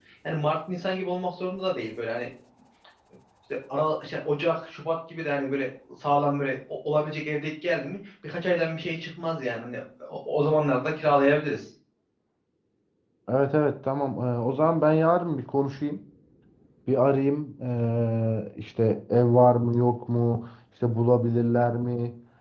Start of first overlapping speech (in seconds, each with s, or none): none